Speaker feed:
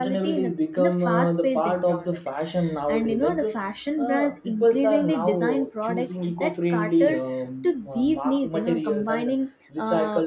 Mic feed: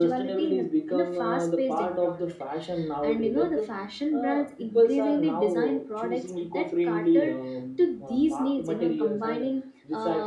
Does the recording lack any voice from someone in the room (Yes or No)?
Yes